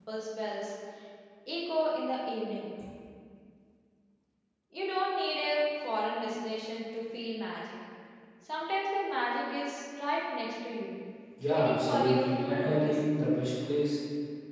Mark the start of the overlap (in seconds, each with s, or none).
11.5 s